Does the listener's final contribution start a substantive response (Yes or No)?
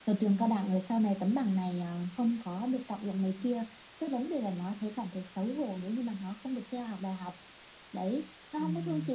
No